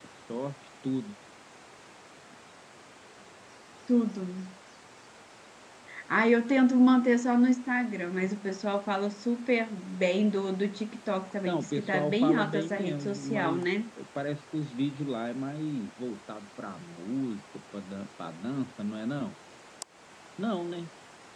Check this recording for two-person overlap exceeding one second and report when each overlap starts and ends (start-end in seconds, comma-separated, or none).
11.5-13.7